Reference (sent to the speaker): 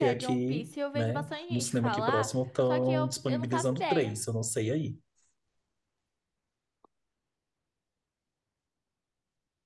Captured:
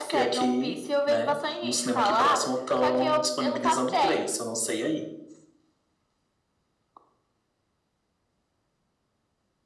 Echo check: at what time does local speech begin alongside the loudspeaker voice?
none

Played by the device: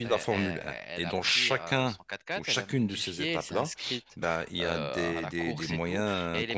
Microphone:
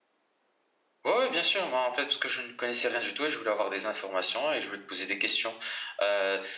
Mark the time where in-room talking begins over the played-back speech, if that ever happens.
1.0 s

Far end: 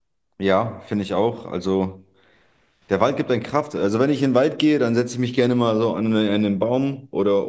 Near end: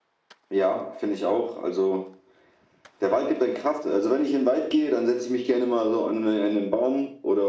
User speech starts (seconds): none

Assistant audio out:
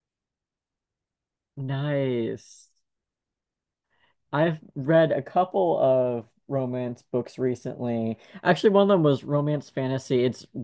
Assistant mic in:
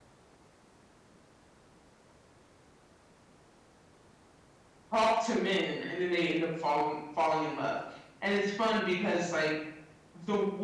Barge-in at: 4.9 s

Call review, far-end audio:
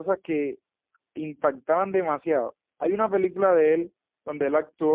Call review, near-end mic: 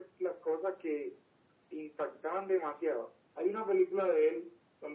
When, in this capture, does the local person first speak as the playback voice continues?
none

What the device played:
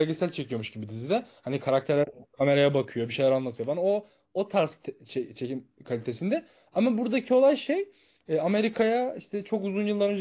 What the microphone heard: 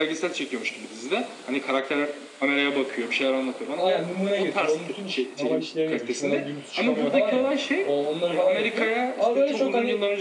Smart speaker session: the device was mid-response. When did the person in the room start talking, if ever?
3.8 s

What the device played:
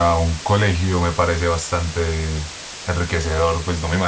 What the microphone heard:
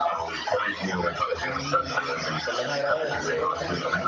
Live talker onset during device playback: 1.3 s

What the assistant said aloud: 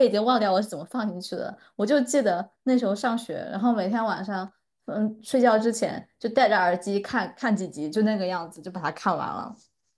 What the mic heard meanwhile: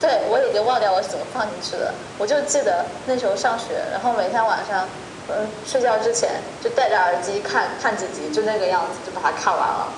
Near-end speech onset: none

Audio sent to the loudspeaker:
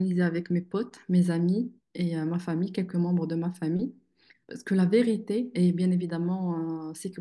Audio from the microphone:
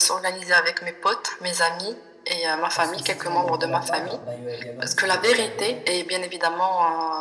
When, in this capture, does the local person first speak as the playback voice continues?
2.7 s

